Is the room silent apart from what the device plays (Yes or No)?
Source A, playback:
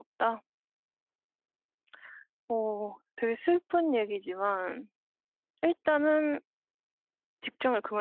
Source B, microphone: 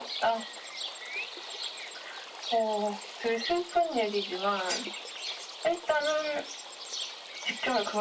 Yes